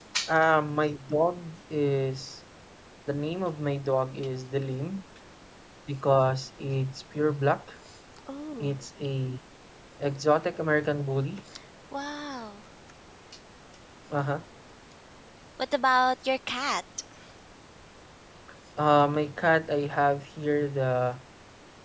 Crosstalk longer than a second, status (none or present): none